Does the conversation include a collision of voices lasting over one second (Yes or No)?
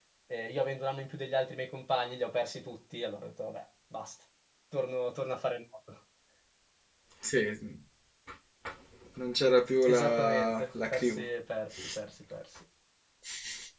Yes